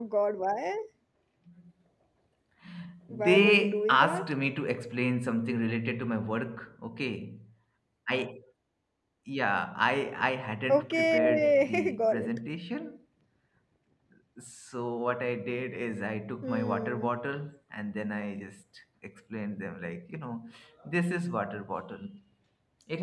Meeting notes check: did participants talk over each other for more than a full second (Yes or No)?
Yes